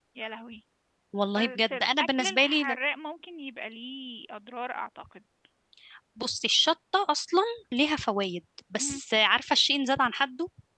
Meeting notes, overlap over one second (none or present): present